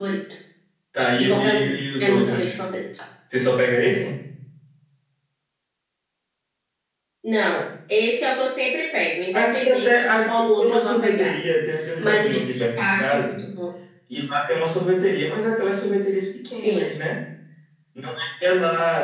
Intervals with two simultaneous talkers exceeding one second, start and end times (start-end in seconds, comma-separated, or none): 1.1-2.6, 9.3-11.3, 12.0-13.4